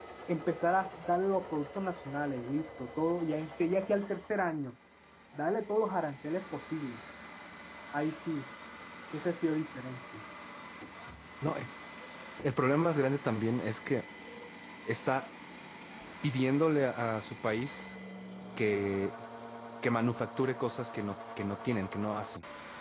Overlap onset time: none

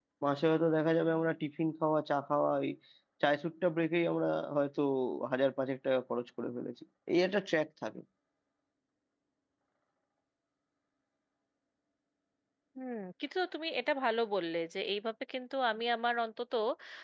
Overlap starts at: none

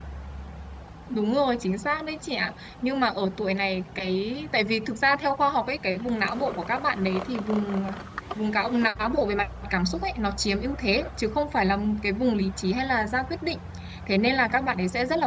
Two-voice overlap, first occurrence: none

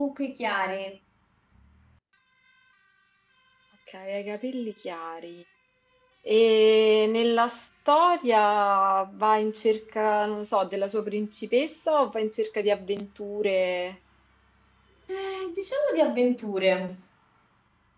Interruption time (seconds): none

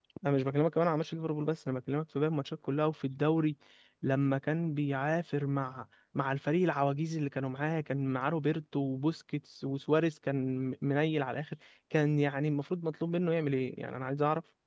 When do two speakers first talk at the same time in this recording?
none

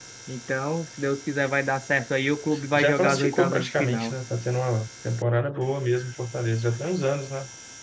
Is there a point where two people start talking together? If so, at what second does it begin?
3 s

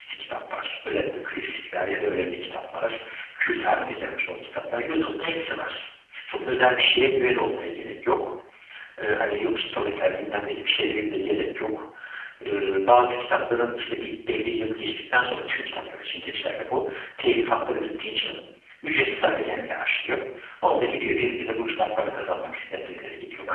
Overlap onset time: none

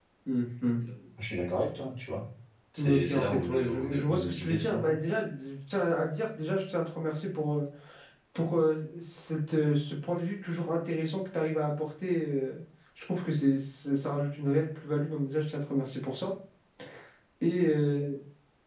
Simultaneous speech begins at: 3 s

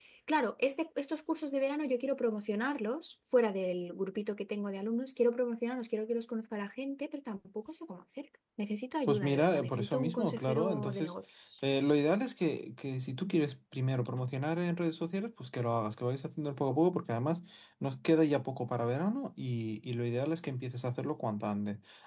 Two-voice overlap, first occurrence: 9 s

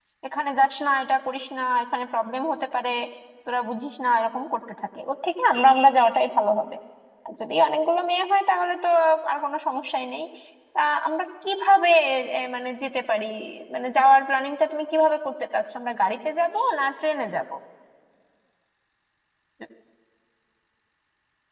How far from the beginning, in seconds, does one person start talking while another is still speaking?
none

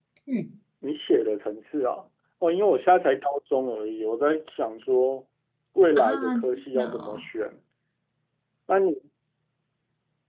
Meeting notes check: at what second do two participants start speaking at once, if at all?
6 s

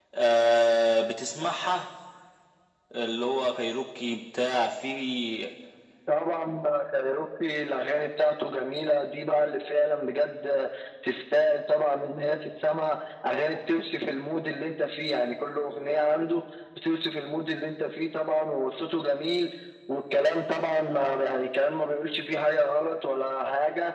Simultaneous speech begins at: none

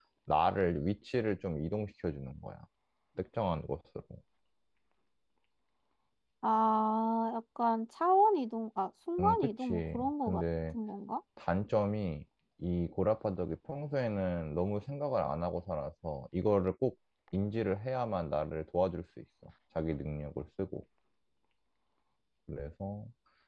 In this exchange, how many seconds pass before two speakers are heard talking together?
9 s

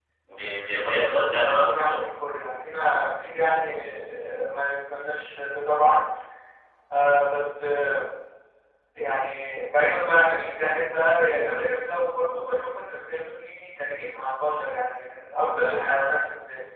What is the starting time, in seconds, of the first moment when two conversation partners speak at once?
1 s

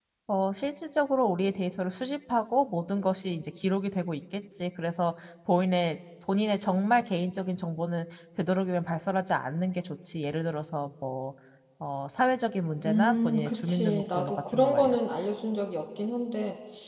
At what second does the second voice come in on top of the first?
13 s

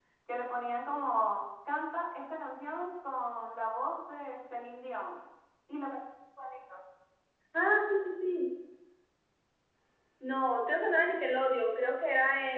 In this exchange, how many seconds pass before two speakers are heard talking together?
none

